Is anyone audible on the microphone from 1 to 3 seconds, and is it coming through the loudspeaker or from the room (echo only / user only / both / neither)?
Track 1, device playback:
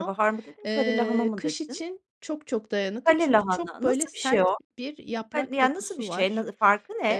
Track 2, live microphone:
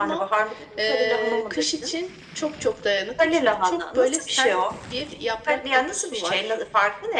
echo only